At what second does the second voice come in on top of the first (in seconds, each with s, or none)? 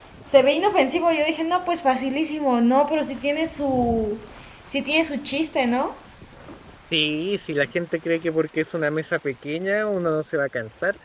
none